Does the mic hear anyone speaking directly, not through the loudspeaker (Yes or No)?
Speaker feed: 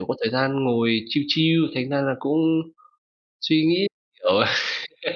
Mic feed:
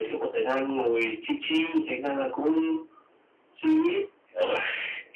No